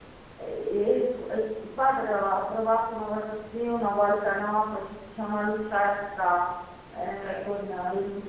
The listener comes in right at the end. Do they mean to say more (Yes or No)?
No